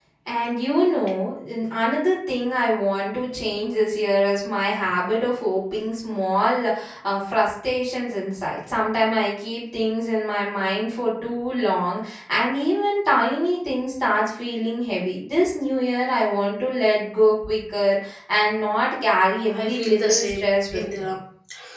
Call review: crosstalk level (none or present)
present